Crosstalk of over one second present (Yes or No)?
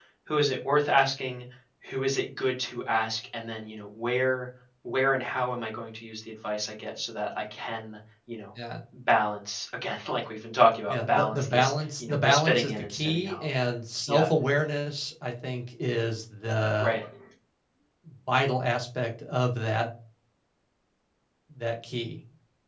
Yes